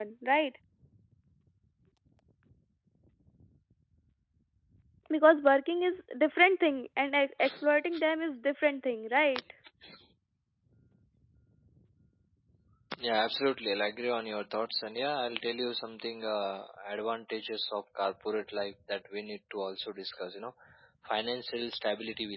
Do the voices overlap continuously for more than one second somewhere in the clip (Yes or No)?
No